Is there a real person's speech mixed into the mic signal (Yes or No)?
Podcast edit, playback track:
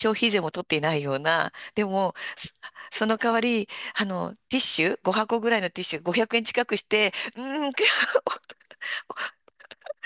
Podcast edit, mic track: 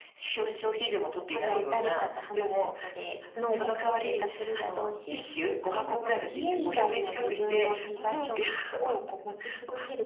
Yes